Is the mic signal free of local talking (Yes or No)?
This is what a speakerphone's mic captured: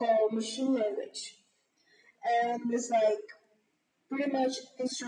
Yes